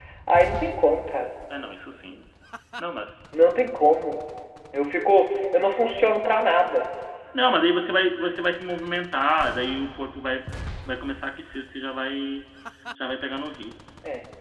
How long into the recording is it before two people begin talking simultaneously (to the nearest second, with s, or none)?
none